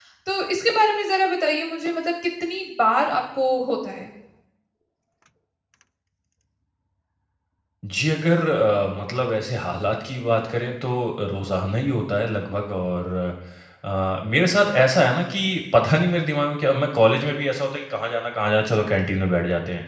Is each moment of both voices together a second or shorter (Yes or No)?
Yes